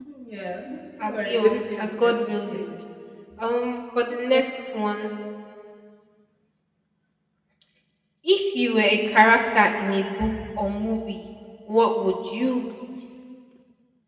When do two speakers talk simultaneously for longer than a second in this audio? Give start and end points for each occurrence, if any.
1.0-2.6

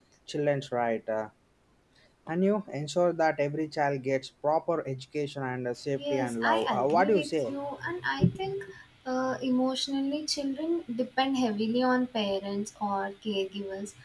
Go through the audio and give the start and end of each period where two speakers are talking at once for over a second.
6.0-7.5

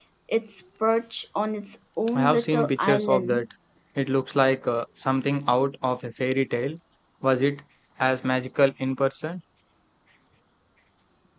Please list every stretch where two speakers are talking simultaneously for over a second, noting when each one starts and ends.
2.1-3.5

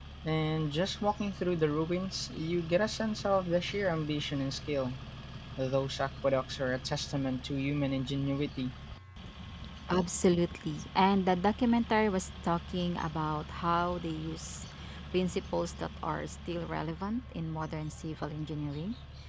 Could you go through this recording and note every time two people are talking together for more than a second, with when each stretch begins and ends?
none

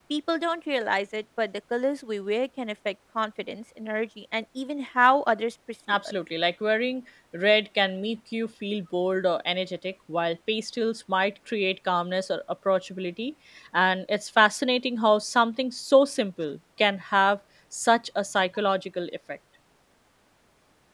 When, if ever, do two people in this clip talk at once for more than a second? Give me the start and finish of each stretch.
none

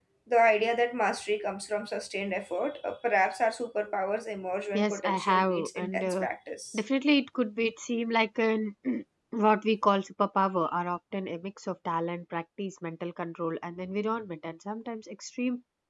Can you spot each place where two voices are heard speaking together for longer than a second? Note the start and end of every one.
4.7-6.2

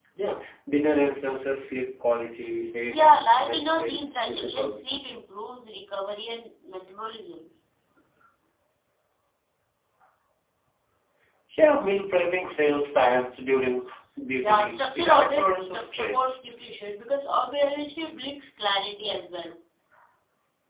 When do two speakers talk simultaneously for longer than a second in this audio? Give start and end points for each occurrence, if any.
2.9-4.8, 14.4-16.4

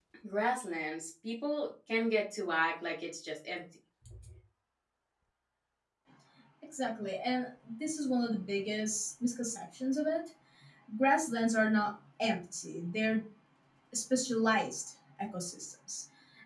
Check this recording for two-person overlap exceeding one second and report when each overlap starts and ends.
none

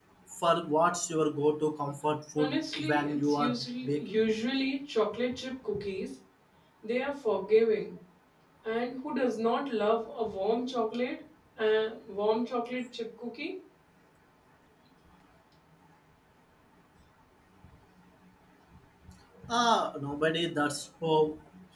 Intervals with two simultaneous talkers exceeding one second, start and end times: 2.4-4.2

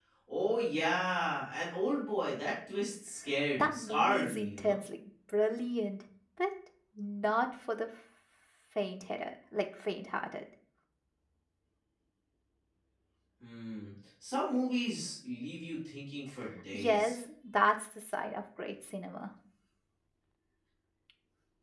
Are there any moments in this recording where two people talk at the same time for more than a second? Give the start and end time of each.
3.5-4.8

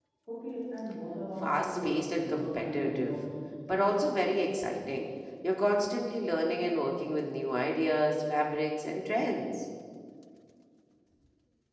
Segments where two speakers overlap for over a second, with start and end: 1.4-3.2

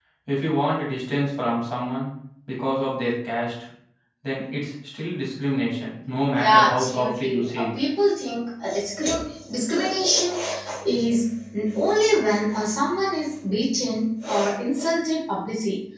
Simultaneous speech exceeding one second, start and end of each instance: 6.4-7.8

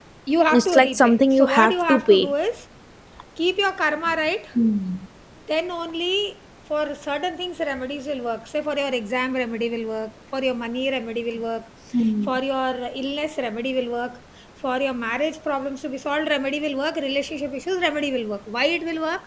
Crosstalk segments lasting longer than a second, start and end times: 0.5-2.3

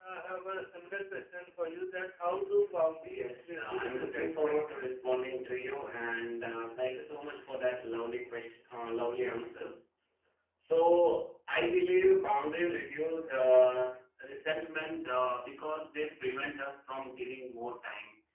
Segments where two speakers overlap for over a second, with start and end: 3.0-4.6

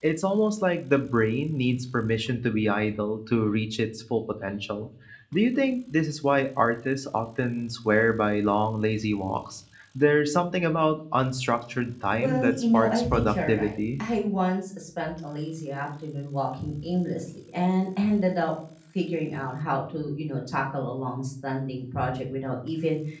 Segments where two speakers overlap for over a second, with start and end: 12.1-14.0

